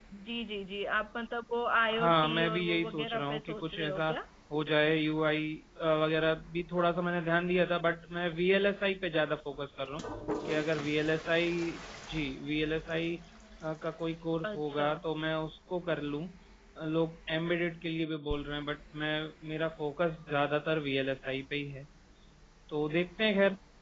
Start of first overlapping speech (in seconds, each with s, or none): 2.0 s